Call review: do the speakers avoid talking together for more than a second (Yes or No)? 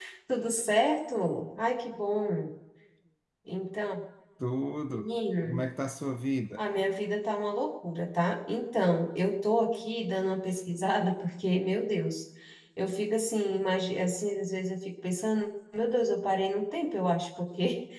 Yes